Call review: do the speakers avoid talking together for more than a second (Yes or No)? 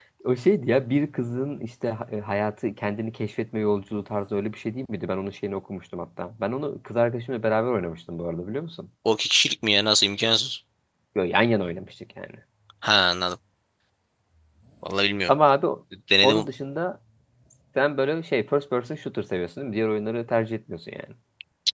Yes